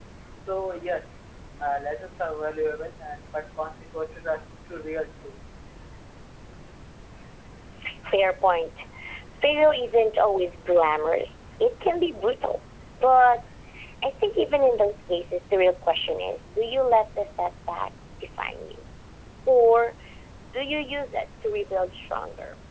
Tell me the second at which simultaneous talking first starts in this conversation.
none

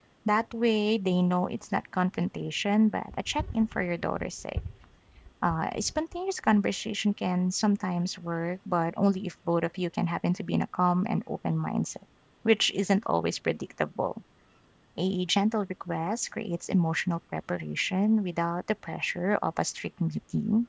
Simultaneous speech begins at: none

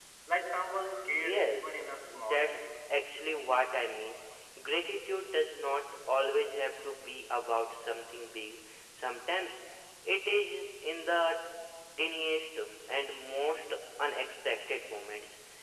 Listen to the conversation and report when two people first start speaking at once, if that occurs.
1 s

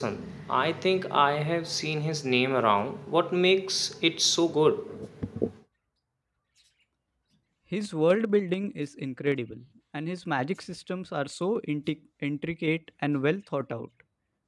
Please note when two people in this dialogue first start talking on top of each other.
none

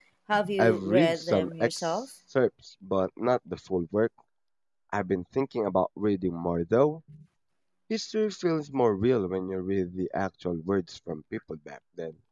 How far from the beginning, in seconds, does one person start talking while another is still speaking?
1 s

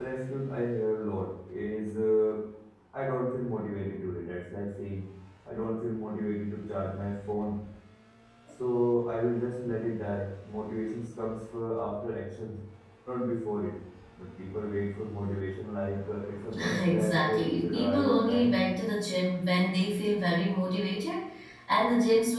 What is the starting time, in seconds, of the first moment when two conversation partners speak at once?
17 s

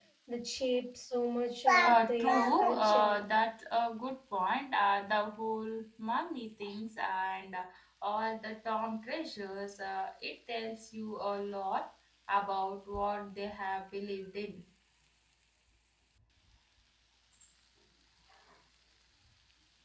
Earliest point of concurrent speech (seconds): 2 s

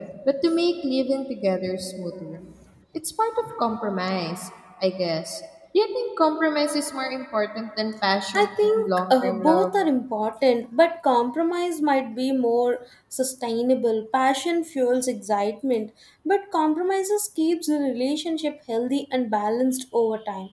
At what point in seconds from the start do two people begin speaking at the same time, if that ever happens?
8 s

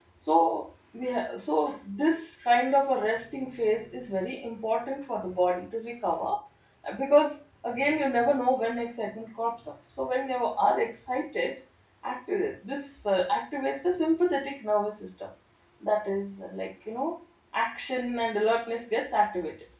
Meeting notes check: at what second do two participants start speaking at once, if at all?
none

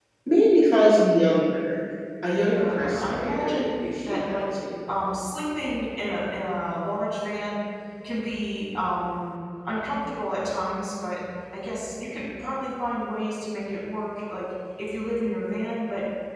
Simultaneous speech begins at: 2 s

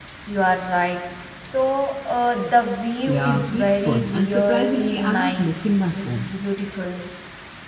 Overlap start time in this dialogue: 3 s

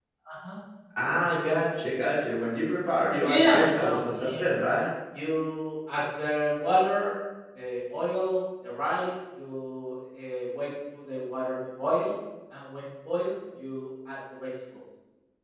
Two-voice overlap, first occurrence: 3 s

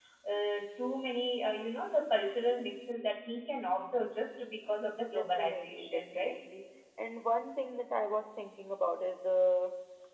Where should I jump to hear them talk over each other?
5 s

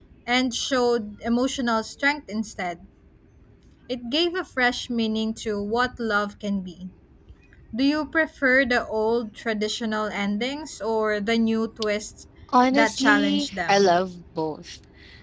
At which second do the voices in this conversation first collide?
13 s

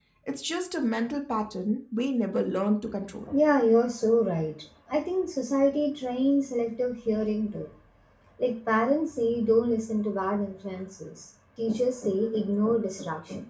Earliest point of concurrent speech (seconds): none

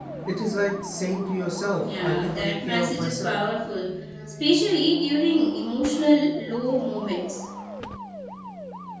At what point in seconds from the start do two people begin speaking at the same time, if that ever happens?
2 s

